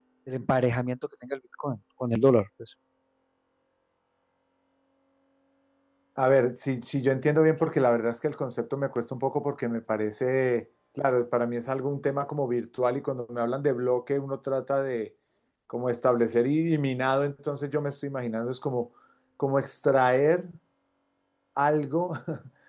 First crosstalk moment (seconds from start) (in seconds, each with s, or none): none